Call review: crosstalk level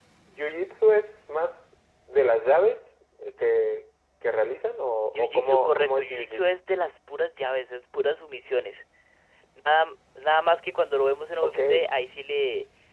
present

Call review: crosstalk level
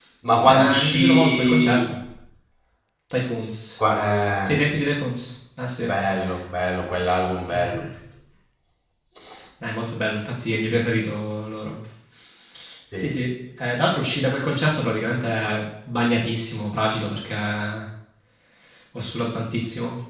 present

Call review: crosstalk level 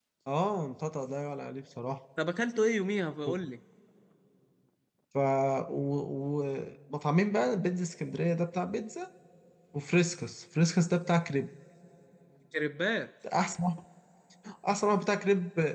none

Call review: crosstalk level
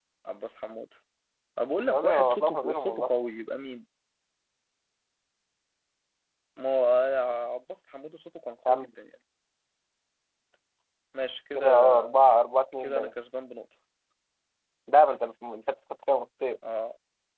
present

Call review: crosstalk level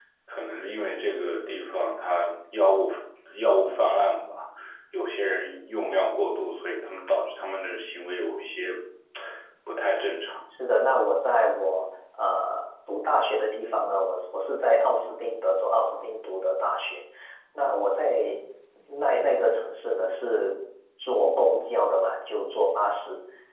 none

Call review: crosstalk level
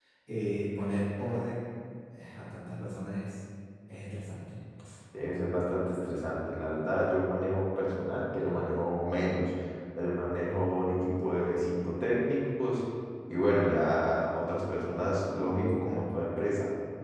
none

